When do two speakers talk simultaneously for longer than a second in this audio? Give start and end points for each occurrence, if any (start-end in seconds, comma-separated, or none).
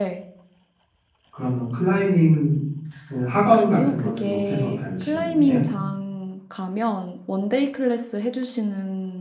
3.5-5.6